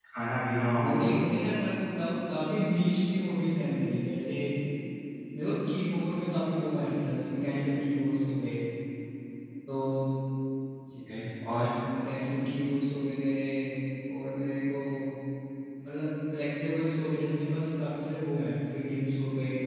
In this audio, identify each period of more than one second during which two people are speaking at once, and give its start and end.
none

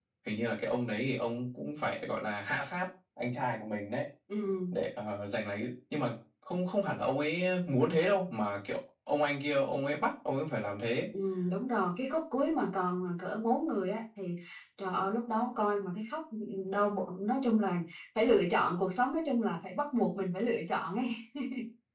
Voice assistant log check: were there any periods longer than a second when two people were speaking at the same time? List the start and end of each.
none

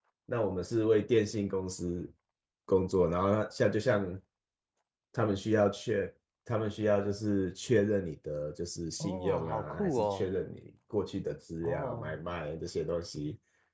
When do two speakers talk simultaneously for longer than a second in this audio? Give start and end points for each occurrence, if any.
9.0-10.3

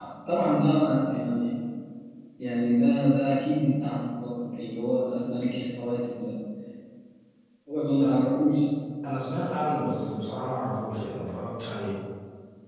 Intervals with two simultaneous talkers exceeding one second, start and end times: none

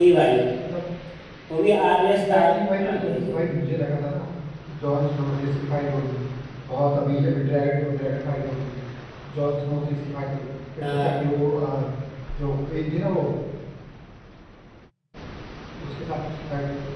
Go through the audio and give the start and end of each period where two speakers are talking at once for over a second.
2.1-3.4

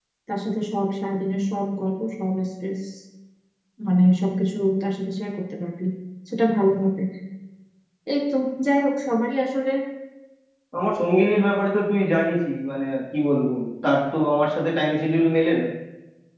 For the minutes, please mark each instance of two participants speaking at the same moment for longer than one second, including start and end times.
none

